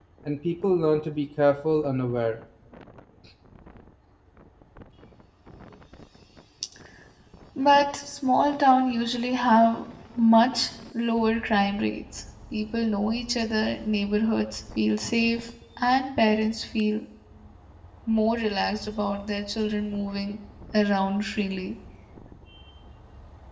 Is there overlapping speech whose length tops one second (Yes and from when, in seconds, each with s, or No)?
No